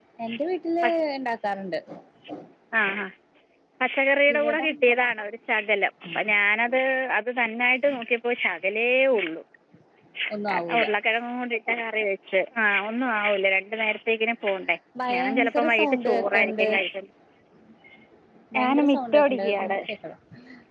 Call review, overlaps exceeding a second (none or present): present